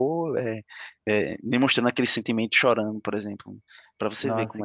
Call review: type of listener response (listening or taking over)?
taking over